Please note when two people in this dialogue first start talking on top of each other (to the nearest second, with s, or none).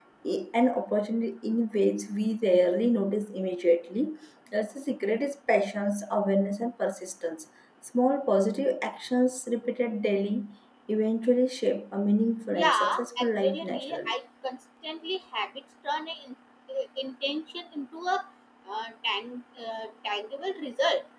13 s